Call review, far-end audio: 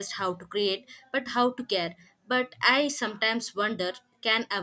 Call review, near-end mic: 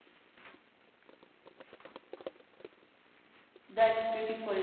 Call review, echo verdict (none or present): none